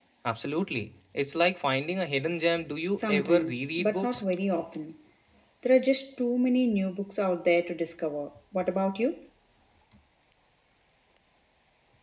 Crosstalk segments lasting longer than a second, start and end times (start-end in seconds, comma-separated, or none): 2.9-4.2